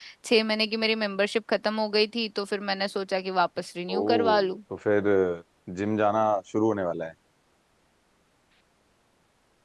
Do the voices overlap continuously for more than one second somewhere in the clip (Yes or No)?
No